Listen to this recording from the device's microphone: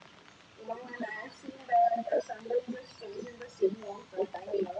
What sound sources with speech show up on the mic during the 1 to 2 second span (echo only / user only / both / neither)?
echo only